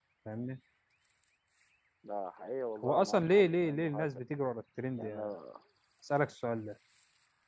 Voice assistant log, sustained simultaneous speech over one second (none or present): present